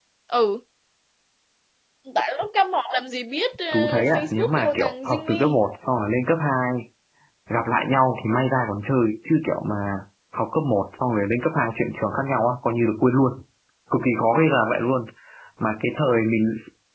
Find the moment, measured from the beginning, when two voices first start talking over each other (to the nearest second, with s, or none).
4 s